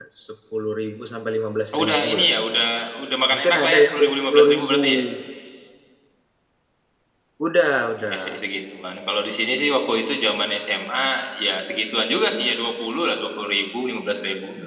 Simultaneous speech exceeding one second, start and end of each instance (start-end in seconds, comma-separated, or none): 3.3-4.8